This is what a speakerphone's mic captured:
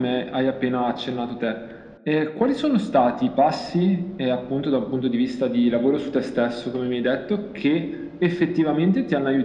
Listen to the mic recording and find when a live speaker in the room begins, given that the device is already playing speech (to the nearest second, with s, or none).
none